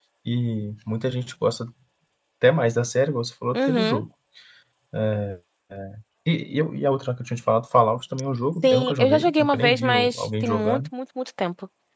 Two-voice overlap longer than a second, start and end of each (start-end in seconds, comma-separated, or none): 8.6-10.9